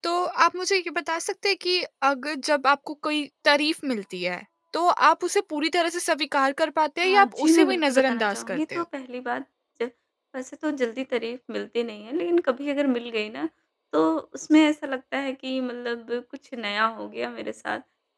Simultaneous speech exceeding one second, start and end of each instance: 7.0-8.8

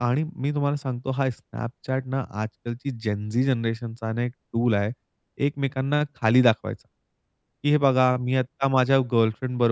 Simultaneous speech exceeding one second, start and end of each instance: none

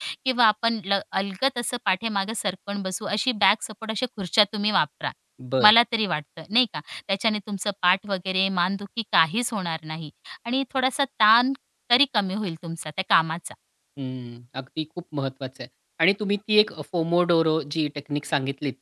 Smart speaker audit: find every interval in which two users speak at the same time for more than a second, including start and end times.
none

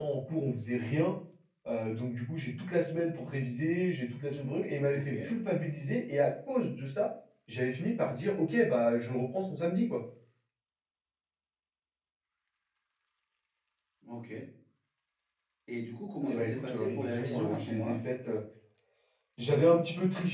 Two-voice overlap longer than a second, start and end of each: 16.3-18.0

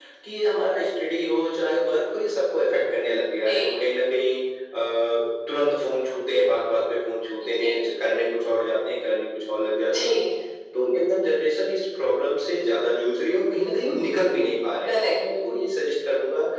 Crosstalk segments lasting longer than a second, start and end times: none

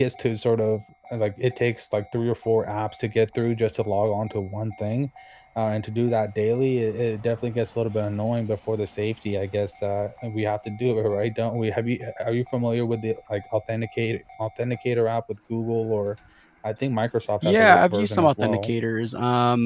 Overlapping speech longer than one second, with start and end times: 17.4-18.7

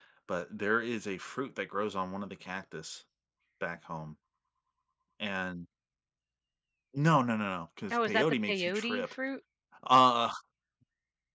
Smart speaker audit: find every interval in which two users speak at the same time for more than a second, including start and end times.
7.9-9.1

